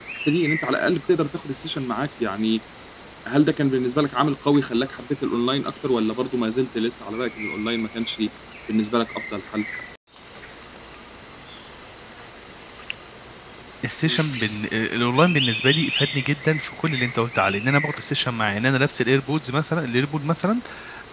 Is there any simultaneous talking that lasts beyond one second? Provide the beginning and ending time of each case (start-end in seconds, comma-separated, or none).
none